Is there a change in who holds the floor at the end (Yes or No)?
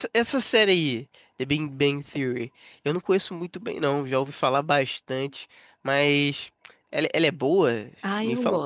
Yes